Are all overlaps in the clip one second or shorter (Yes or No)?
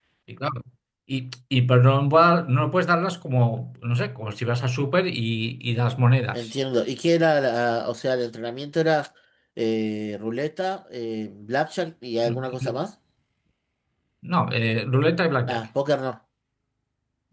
Yes